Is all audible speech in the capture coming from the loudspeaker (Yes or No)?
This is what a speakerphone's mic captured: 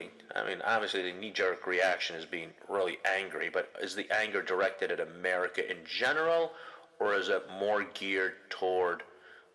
Yes